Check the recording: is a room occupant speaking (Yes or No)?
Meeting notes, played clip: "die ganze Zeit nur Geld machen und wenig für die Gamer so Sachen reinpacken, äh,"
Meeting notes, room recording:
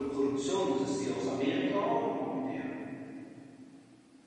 Yes